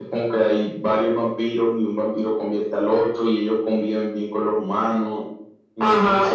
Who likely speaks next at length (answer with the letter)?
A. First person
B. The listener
B